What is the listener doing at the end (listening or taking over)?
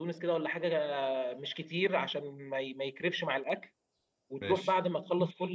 listening